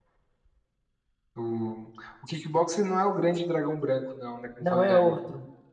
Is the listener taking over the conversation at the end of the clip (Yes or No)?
Yes